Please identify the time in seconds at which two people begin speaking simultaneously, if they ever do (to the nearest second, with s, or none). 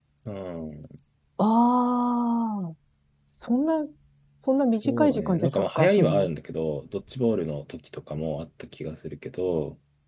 5 s